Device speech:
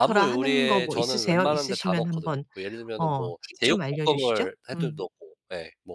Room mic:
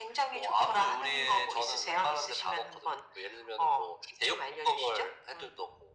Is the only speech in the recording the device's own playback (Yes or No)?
Yes